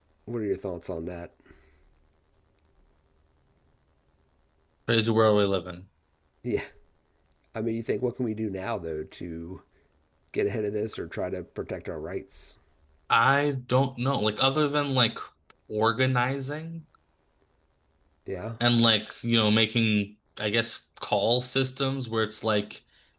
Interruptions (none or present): none